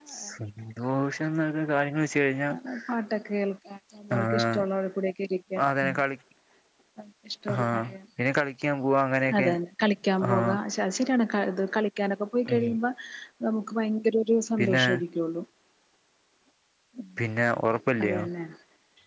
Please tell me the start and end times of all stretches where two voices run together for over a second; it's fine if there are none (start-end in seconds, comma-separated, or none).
none